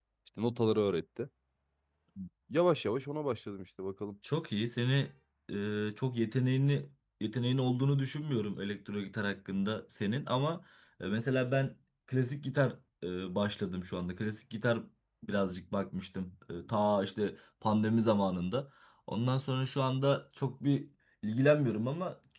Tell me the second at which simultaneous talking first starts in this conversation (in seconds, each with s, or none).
none